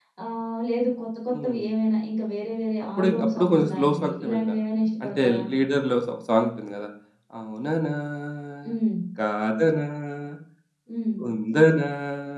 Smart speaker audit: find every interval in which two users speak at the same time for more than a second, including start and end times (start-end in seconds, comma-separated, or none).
3.0-4.5